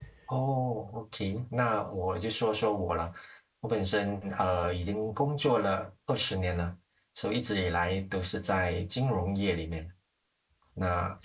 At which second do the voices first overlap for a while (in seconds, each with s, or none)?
none